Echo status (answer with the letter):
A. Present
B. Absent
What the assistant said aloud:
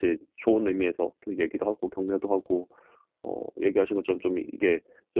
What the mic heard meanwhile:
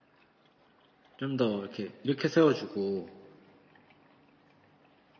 B